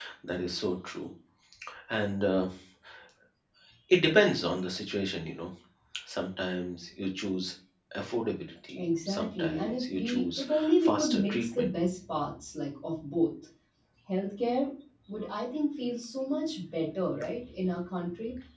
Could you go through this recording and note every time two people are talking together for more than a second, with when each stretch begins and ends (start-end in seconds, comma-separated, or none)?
8.8-11.7